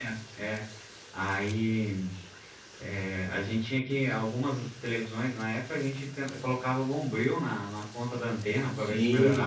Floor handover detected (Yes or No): Yes